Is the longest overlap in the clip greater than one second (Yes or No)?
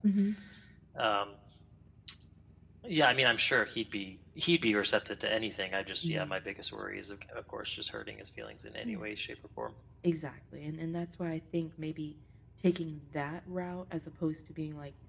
No